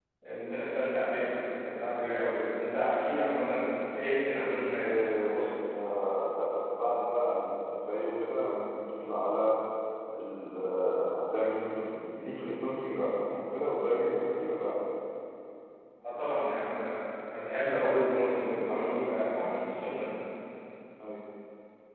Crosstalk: none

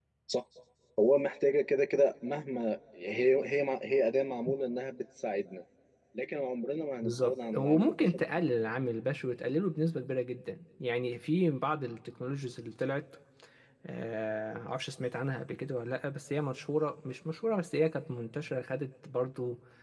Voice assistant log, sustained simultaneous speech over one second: present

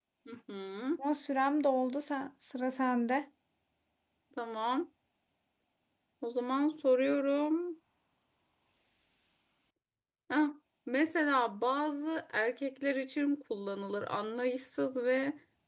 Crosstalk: none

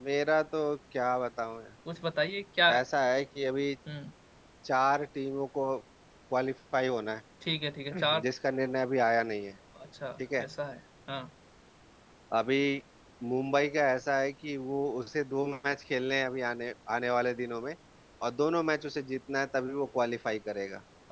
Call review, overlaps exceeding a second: none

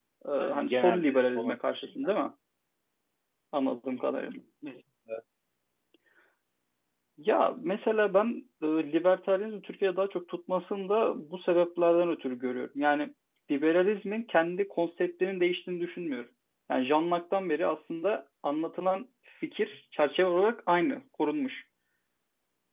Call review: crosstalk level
present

